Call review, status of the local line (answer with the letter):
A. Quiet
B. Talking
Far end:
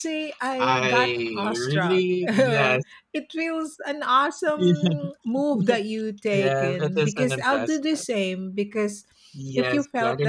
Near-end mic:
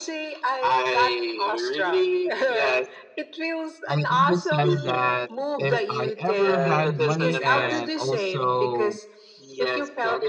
B